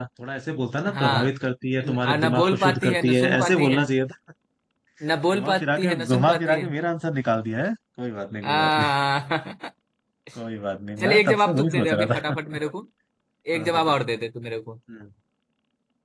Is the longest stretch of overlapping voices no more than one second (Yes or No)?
No